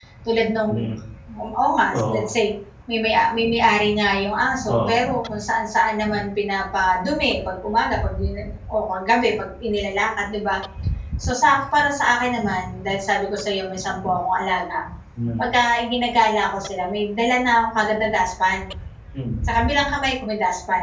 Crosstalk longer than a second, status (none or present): none